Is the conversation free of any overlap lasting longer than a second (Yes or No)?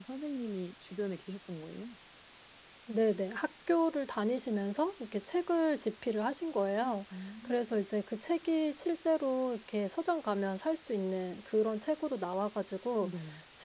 Yes